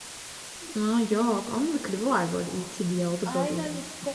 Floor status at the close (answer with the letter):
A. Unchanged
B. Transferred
B